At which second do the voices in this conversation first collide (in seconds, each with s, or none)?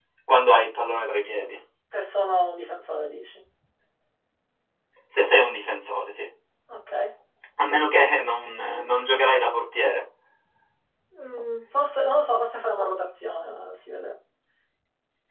none